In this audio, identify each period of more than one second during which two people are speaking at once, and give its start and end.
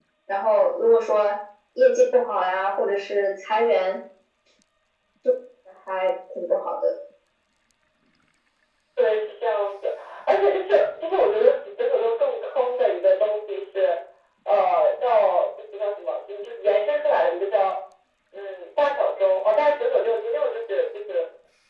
none

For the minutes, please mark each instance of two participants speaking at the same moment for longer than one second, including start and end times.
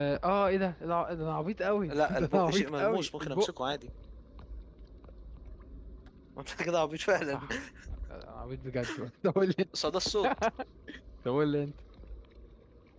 1.9-3.5

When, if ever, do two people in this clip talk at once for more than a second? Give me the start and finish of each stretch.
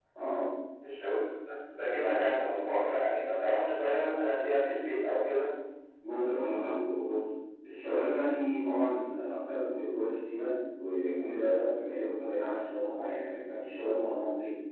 none

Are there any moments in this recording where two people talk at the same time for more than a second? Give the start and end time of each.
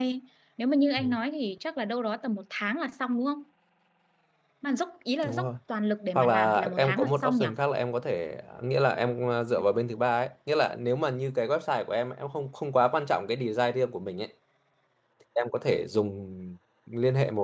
6.2-7.5

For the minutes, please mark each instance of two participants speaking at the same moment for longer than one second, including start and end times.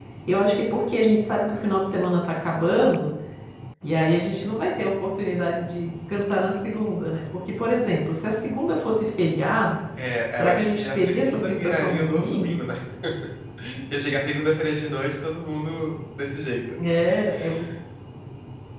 10.4-12.6

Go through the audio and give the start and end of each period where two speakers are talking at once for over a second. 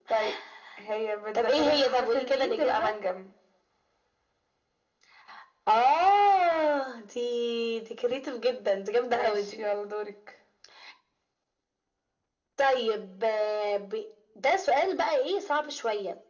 1.4-2.8

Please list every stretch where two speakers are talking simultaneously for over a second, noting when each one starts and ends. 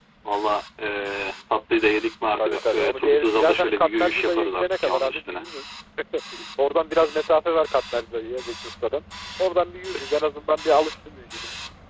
2.4-5.4

